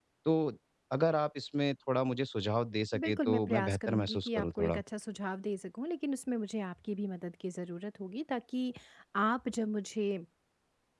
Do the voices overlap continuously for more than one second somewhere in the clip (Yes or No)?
Yes